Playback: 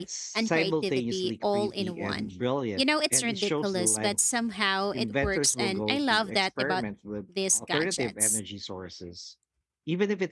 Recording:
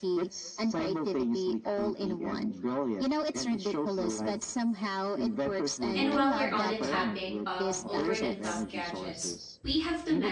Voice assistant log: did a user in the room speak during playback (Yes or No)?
Yes